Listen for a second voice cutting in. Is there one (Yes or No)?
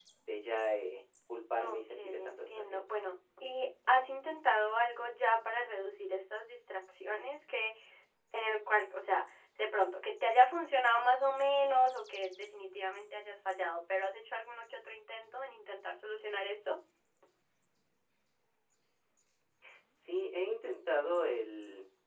Yes